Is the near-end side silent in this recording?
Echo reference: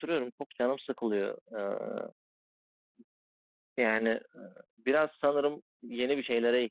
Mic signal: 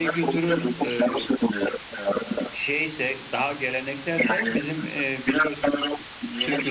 No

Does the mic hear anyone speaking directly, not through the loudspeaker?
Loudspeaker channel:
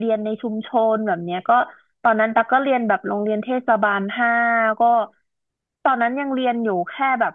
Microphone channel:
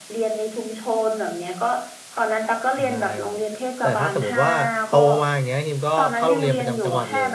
Yes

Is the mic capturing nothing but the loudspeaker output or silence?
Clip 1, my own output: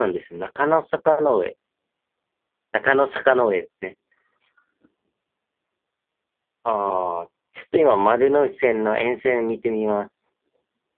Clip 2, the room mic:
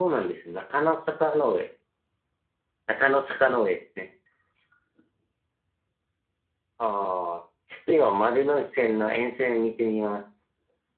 Yes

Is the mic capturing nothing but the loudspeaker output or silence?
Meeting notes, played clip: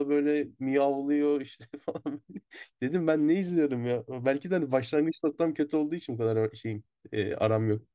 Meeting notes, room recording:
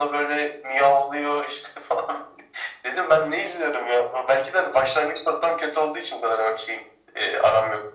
Yes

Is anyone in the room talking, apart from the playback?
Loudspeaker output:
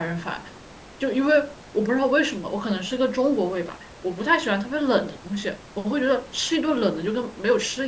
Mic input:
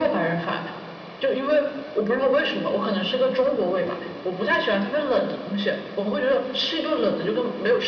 No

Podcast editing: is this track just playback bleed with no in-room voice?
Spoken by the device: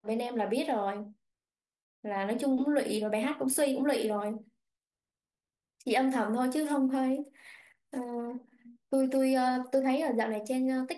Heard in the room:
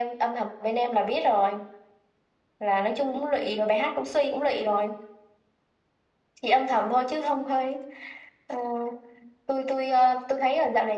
Yes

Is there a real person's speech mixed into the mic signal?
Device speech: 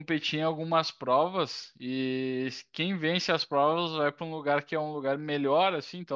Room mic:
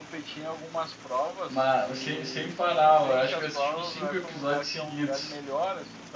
Yes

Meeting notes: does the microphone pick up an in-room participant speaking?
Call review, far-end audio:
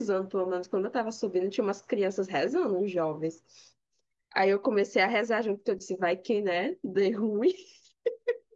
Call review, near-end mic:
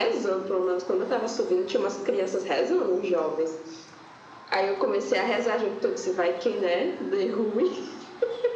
No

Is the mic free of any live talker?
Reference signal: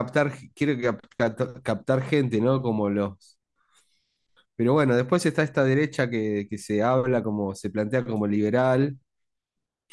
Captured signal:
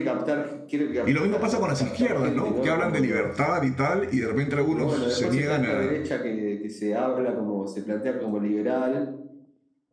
No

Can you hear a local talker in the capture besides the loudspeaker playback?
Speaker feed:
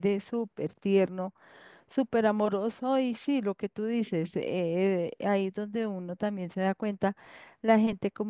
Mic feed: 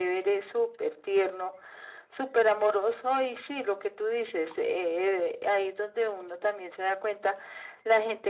No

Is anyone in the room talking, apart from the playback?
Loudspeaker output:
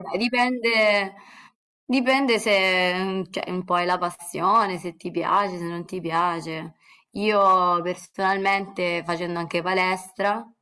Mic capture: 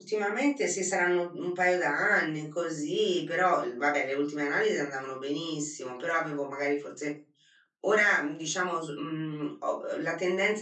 Yes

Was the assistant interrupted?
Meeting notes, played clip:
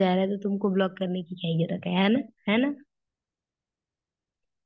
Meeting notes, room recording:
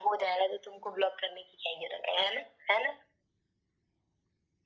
No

